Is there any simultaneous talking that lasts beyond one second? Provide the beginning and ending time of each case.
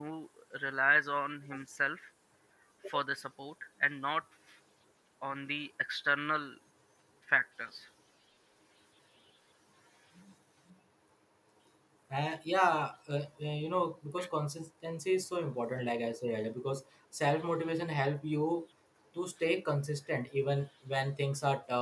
none

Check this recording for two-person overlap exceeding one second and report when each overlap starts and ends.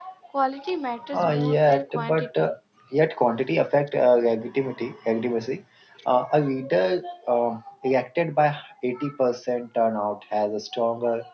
1.1-2.5

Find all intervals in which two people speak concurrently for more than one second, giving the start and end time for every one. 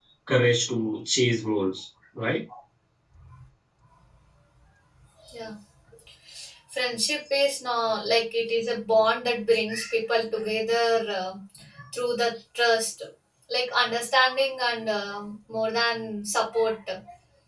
none

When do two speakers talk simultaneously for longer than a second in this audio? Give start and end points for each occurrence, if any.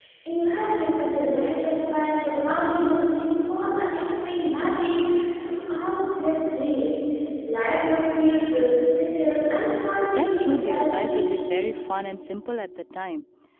10.2-11.4

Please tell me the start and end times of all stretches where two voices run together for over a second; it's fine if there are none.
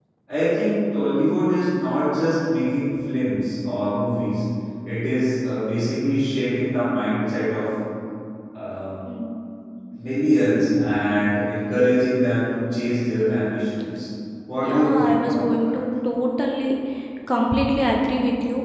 14.6-15.8

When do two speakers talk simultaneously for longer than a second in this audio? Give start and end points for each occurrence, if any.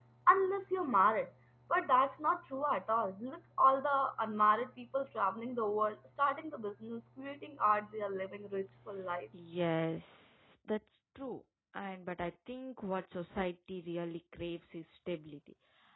none

